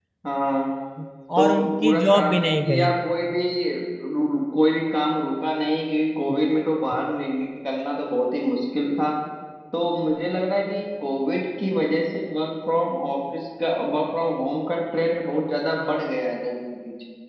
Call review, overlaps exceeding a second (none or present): present